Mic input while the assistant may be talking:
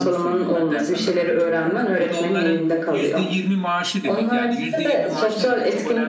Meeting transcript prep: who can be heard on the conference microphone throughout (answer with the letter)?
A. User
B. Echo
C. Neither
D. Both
D